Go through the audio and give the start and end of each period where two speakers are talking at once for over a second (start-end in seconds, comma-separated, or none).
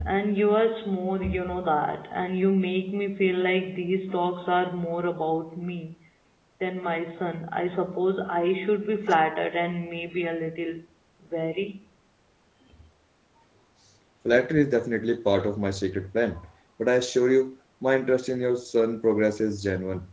none